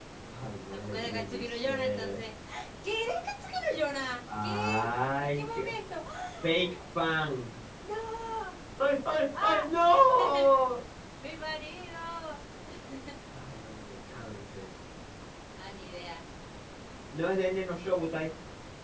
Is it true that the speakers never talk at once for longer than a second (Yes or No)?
No